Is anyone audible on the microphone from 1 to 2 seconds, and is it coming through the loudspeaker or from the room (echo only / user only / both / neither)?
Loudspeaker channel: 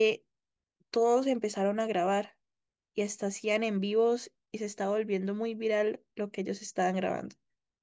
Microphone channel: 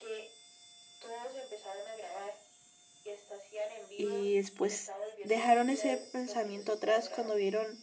echo only